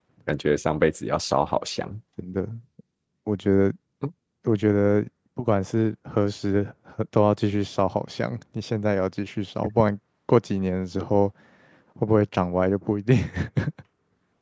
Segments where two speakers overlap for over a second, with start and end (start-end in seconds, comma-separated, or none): none